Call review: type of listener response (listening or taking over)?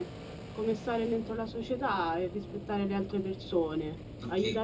taking over